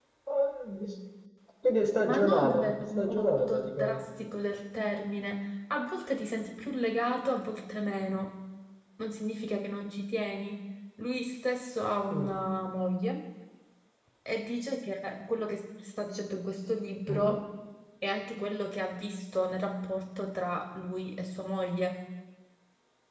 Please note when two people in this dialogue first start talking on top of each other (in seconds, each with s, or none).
2.0 s